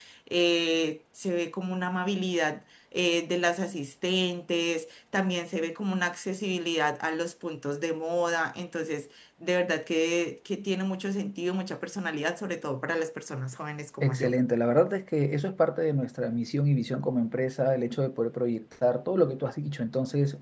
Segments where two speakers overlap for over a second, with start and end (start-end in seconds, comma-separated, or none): none